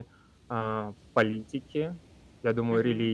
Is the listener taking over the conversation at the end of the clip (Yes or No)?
No